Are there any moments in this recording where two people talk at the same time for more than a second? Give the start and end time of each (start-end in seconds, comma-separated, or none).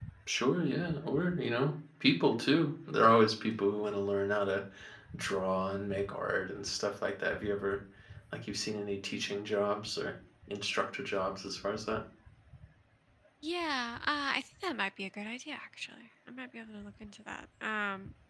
none